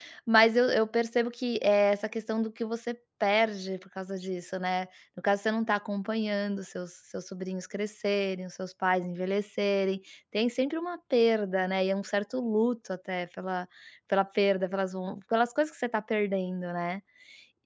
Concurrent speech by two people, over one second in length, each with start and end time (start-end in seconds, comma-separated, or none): none